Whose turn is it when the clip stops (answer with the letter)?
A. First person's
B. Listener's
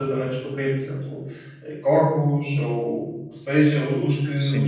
A